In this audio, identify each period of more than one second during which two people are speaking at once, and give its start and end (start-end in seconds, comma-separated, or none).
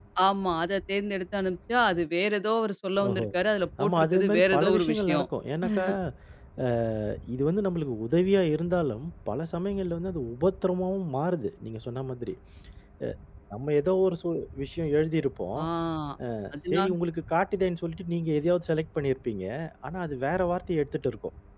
3.8-5.2